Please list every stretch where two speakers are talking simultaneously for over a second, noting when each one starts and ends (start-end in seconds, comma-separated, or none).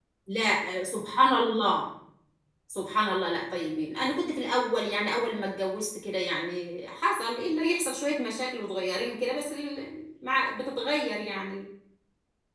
none